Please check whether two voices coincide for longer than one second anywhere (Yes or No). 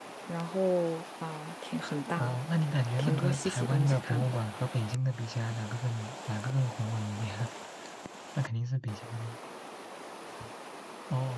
Yes